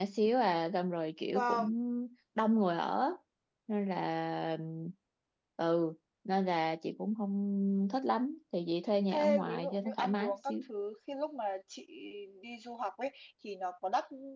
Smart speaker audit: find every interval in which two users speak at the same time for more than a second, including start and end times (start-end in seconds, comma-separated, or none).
9.1-10.4